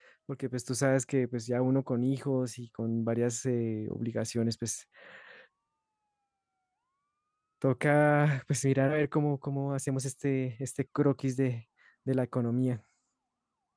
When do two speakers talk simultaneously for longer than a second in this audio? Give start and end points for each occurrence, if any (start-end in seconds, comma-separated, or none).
none